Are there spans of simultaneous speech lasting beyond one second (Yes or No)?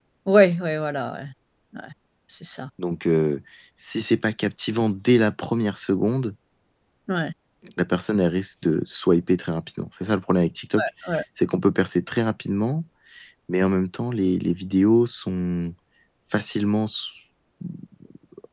No